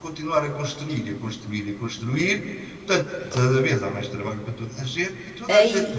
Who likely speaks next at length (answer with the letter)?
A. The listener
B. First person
B